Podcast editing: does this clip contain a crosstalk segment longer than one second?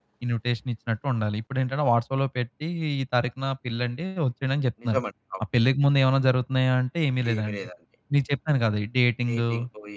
No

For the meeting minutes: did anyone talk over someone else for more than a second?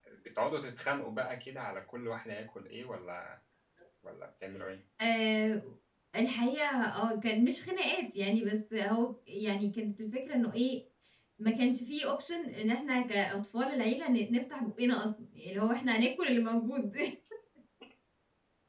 No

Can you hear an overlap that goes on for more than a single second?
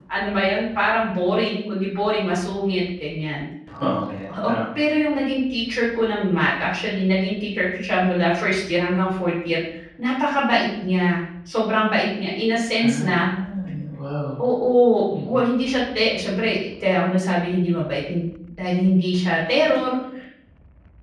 No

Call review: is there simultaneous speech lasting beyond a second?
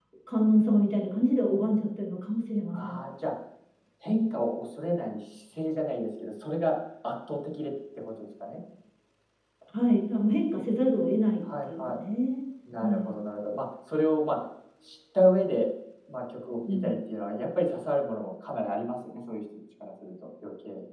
No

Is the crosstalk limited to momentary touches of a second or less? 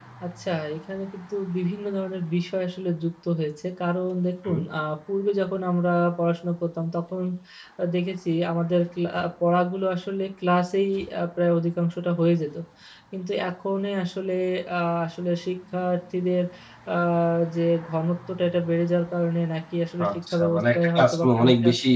No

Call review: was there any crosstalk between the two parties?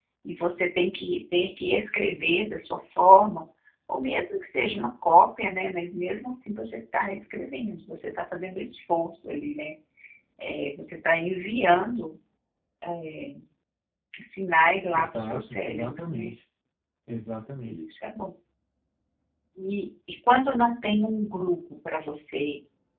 Yes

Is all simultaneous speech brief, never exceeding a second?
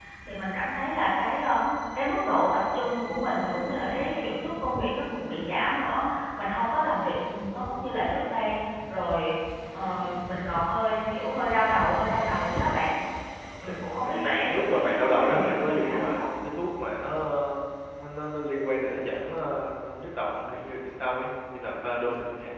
No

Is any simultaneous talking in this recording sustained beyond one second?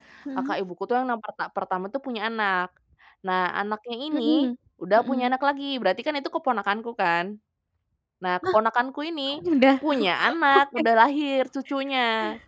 No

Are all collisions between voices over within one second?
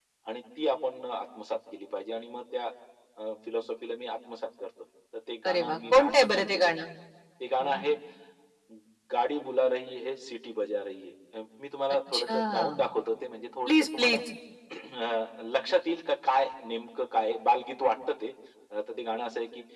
No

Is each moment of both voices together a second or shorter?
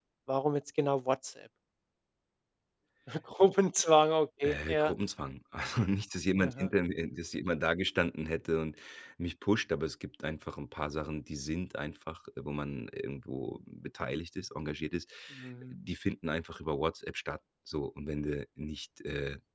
Yes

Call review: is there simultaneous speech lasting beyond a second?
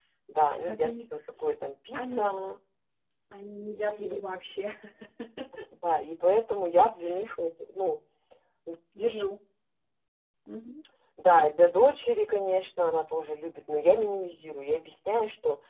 No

